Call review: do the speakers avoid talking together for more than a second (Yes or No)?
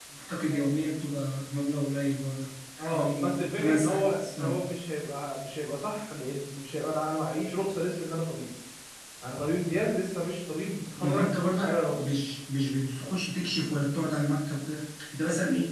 No